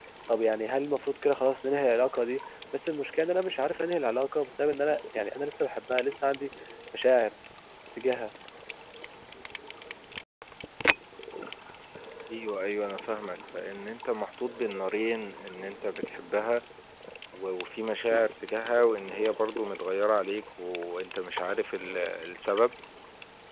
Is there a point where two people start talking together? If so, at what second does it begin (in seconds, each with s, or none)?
none